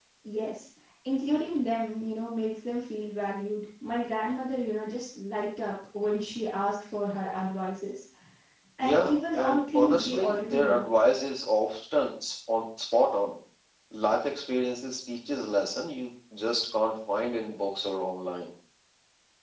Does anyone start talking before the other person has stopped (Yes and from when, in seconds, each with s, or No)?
Yes, from 8.8 s